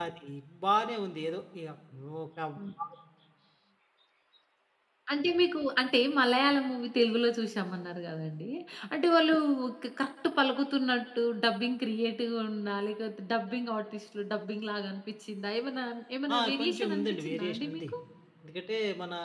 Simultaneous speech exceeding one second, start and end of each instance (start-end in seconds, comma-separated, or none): 16.4-17.9